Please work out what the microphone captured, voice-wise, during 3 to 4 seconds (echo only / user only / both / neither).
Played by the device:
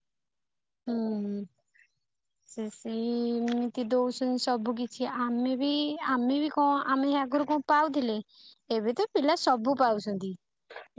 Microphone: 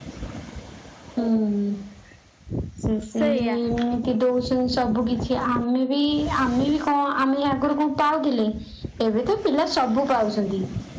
both